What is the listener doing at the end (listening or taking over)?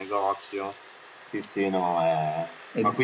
listening